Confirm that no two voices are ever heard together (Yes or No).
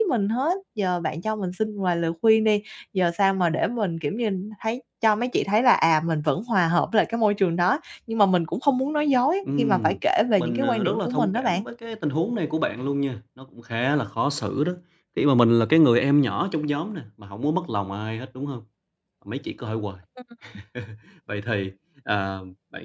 No